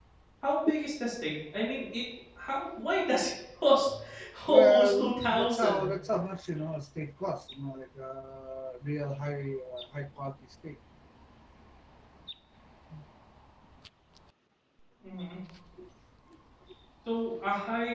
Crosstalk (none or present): present